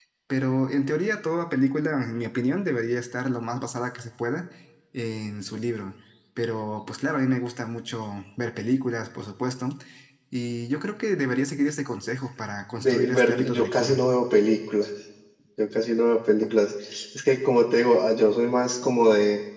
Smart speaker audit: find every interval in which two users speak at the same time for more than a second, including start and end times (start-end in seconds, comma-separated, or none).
12.8-14.0